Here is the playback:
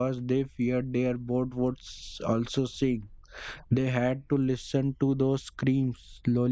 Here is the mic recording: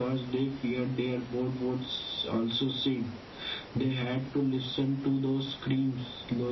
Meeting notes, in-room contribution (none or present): none